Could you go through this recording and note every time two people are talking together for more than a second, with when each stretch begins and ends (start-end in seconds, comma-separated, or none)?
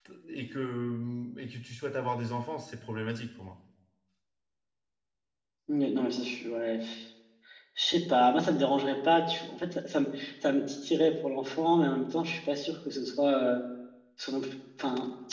none